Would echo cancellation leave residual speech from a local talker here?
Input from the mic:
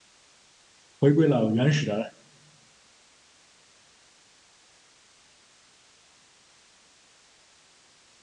Yes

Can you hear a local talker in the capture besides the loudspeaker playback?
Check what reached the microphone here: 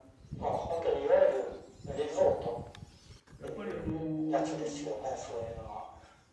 Yes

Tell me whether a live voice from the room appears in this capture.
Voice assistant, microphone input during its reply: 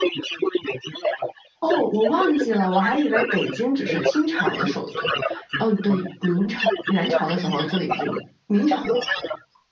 Yes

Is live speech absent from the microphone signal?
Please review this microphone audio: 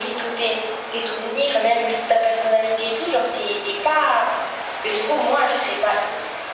Yes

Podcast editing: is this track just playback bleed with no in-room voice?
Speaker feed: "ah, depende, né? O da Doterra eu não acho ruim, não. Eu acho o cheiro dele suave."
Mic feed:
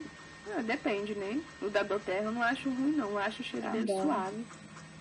No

